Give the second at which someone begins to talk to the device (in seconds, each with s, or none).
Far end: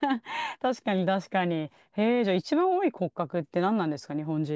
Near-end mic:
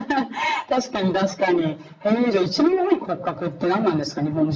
none